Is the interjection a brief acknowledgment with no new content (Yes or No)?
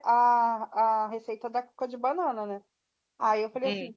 Yes